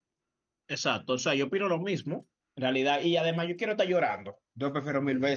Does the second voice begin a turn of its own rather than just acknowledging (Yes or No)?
No